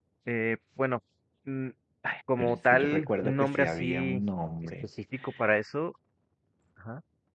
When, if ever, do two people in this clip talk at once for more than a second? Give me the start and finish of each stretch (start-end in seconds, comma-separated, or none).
2.4-4.2